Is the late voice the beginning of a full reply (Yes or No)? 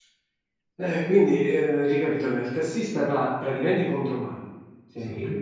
No